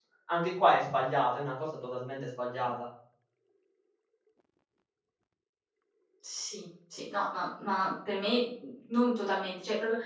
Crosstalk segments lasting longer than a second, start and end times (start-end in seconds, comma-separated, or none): none